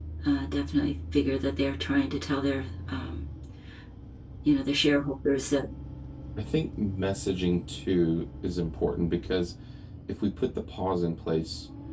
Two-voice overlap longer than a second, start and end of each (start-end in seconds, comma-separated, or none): none